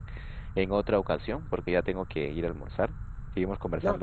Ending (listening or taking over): taking over